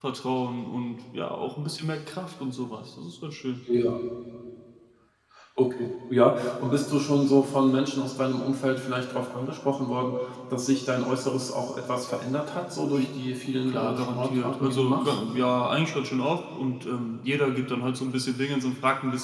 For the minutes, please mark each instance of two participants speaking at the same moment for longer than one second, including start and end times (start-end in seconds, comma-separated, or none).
13.7-15.2